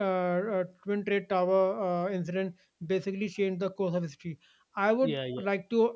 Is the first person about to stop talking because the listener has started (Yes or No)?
No